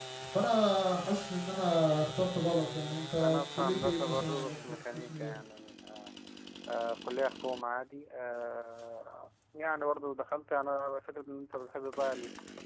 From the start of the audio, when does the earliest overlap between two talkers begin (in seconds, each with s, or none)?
3.2 s